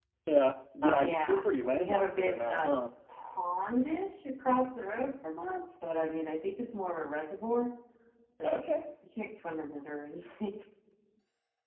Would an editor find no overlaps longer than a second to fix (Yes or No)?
No